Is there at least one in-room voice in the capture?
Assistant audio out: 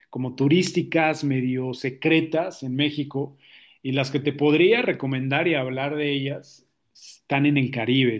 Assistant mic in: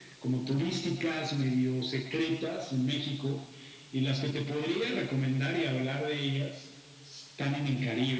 No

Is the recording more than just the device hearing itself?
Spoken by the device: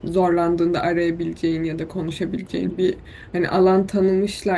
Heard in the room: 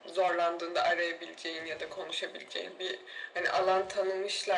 No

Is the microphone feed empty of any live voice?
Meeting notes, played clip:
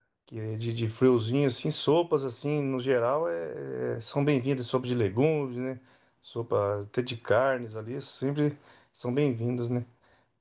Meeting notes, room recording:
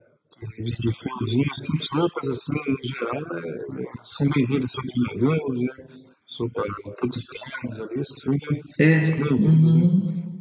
No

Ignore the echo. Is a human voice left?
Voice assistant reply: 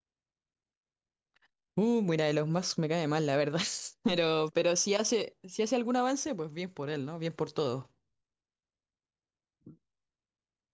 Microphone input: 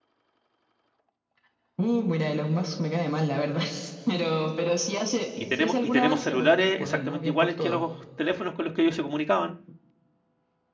Yes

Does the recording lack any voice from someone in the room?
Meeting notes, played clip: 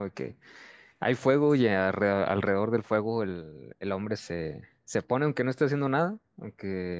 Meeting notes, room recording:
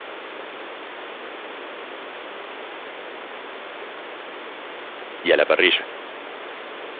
No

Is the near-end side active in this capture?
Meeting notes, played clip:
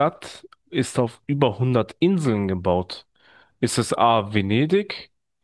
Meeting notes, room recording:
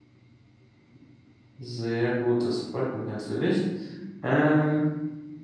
Yes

